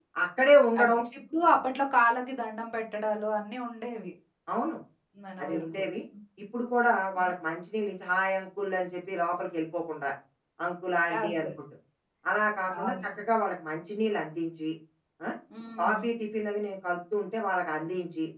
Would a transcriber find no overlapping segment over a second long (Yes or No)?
Yes